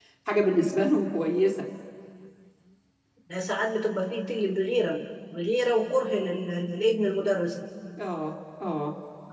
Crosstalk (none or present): none